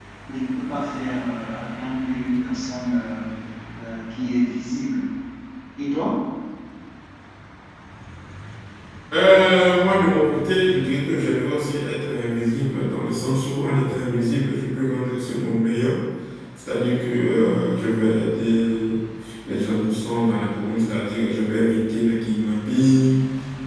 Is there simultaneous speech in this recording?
No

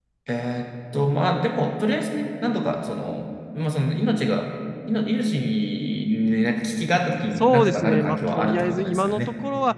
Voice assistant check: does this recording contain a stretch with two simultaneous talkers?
Yes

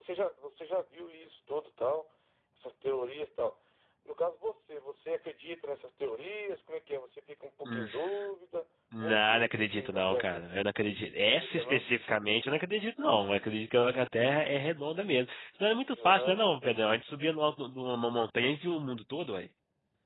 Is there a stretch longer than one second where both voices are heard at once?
Yes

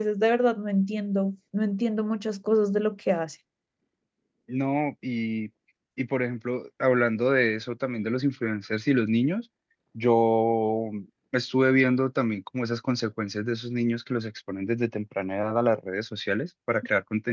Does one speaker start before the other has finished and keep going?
No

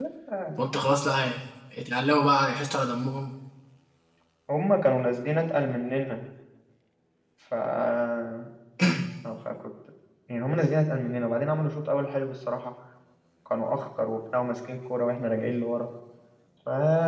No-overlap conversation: Yes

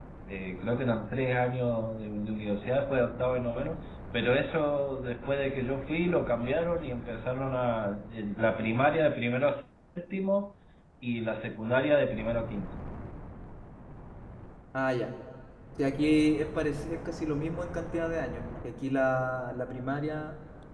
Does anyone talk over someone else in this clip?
No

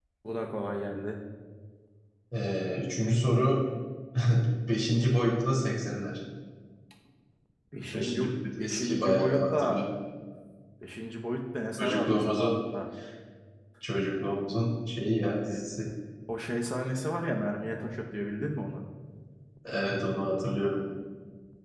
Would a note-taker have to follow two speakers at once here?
Yes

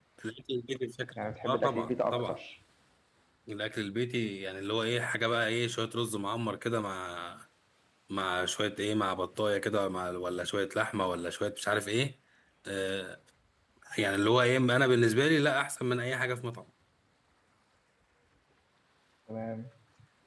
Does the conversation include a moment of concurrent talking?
Yes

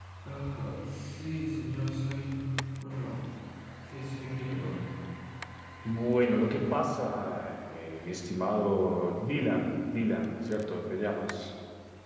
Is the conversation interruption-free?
Yes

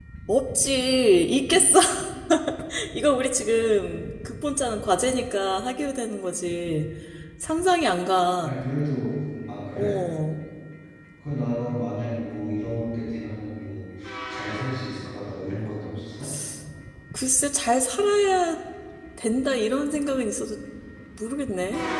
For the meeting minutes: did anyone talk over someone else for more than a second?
No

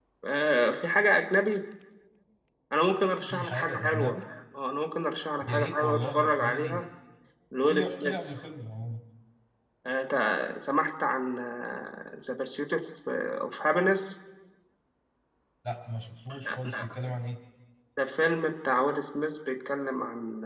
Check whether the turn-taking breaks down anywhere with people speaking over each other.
Yes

